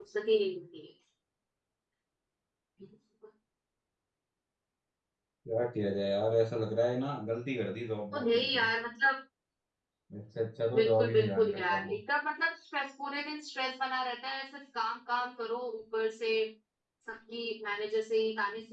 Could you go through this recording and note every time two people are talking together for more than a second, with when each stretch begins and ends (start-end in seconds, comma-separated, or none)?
10.7-11.9